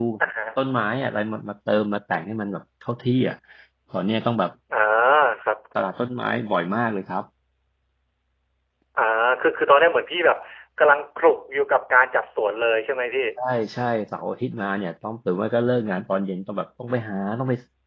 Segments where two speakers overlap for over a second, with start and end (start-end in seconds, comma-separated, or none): none